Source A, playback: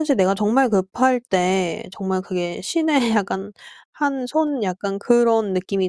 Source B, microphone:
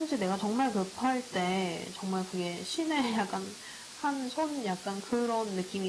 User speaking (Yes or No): No